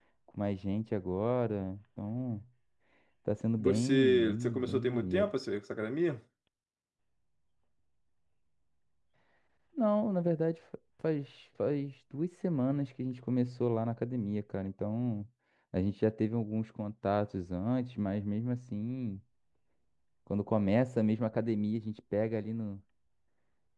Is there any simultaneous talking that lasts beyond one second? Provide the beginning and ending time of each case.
3.6-5.3

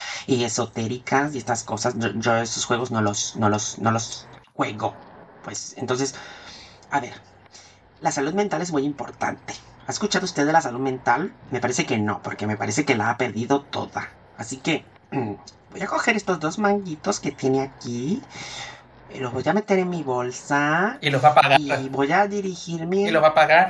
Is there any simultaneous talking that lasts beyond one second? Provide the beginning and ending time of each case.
none

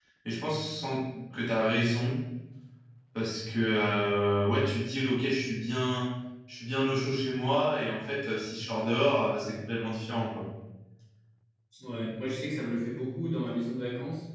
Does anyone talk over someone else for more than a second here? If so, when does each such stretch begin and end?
none

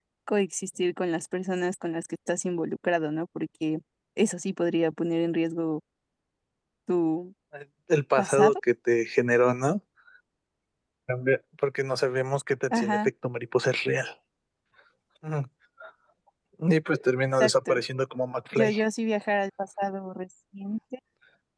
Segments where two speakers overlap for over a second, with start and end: none

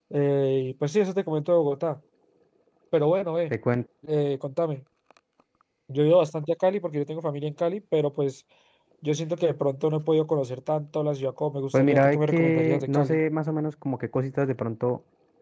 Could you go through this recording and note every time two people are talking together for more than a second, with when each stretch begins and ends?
11.7-13.2

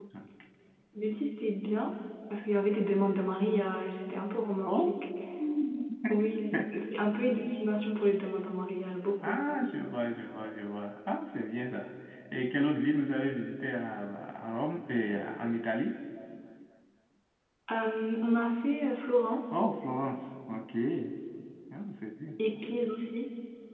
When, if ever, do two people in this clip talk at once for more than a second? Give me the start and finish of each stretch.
none

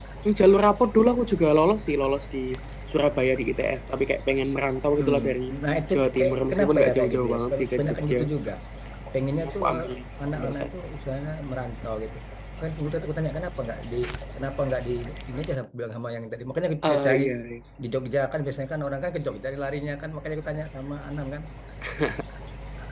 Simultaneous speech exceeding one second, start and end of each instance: 5.9-8.2

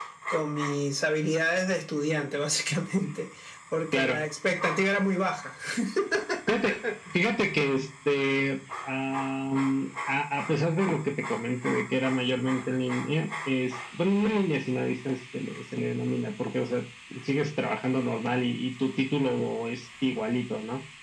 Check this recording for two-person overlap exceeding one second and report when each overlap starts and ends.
none

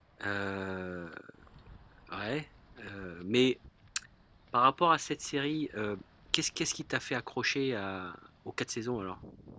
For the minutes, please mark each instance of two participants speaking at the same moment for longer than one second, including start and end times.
none

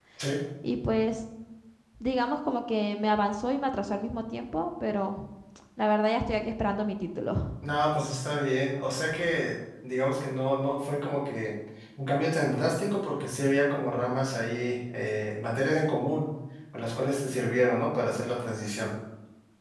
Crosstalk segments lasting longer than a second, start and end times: none

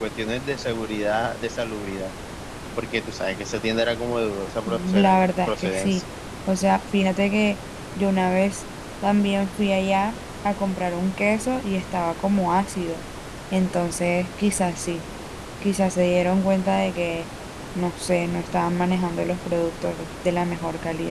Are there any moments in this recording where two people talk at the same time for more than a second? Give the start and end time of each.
4.7-6.0

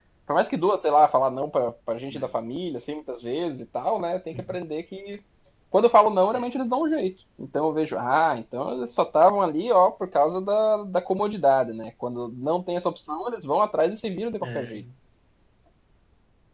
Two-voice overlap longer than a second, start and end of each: none

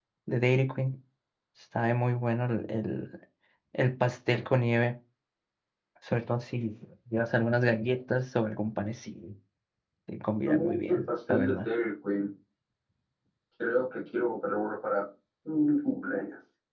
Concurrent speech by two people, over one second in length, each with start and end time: 10.5-11.7

